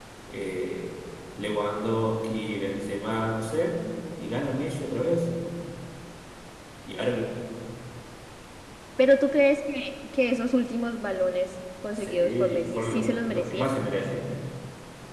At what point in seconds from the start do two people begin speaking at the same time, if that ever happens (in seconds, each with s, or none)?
12.0 s